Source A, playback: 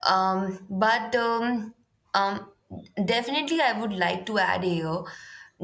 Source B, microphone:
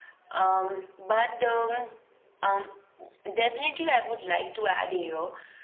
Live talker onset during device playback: none

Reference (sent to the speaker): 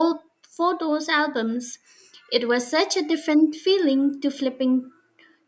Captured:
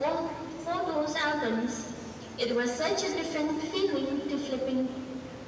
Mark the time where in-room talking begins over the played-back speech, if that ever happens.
none

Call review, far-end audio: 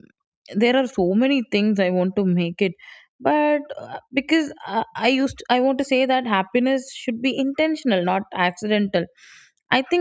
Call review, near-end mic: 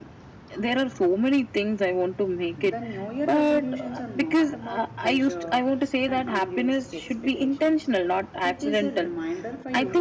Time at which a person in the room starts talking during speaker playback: 3 s

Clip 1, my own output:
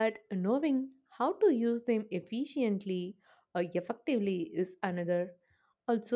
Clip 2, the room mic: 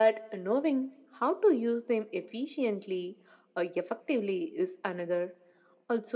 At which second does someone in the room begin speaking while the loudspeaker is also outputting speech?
none

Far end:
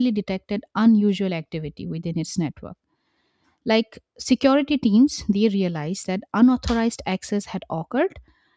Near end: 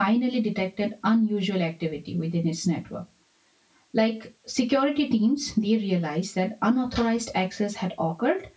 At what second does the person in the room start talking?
none

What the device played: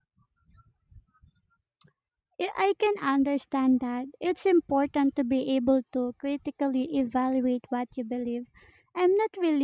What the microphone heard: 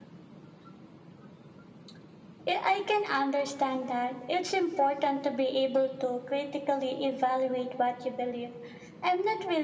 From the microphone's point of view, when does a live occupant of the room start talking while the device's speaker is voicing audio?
none

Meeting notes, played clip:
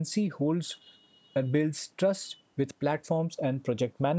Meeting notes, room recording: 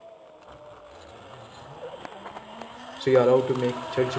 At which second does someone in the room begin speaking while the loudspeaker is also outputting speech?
3 s

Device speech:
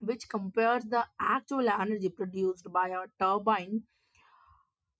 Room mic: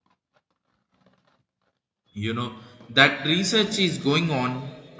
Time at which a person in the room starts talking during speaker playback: 2 s

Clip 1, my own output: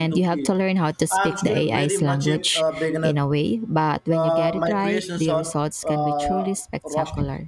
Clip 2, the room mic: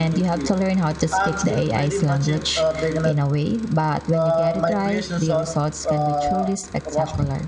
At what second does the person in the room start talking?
none

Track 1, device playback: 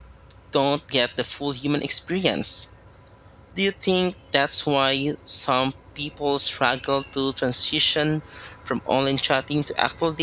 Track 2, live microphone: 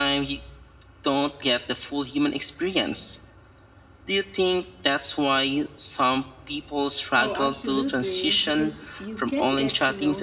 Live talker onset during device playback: 7 s

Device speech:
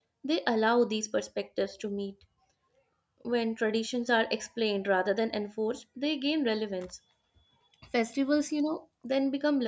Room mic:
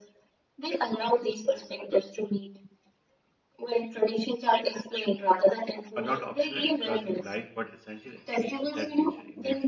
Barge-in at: 6 s

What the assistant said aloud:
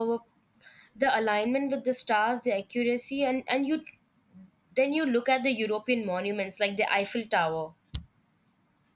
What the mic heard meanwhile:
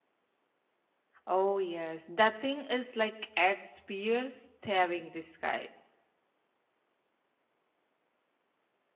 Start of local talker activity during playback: 1 s

